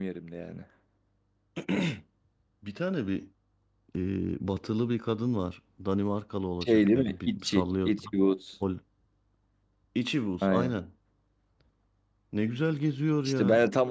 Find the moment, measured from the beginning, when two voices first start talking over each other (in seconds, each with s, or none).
6.6 s